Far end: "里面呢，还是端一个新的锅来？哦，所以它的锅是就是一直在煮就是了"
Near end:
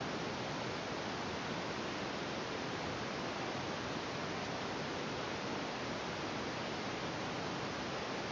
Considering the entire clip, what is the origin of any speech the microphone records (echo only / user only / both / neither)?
neither